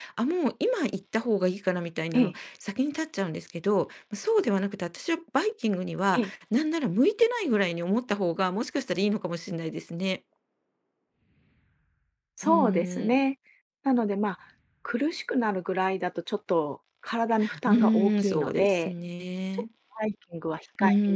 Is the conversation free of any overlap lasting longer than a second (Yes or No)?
No